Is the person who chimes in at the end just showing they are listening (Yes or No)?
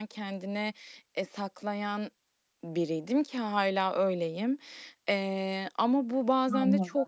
Yes